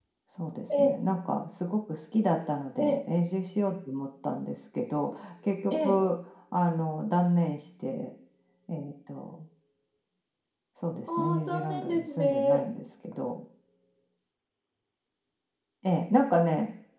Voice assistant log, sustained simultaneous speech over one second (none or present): present